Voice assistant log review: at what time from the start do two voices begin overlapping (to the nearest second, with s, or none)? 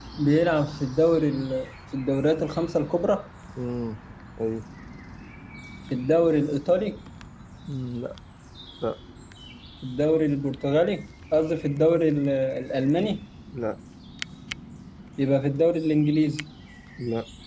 none